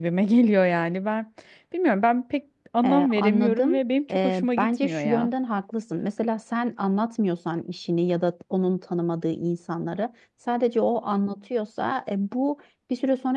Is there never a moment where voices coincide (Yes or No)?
No